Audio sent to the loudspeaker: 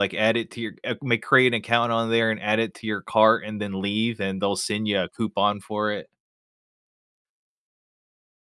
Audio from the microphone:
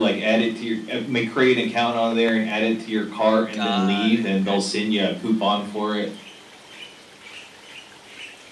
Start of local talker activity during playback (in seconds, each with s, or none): 3.5 s